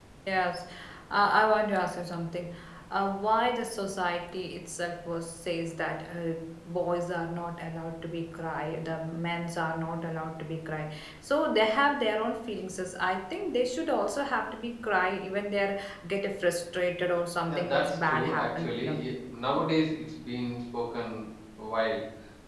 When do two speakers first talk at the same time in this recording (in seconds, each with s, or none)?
17.5 s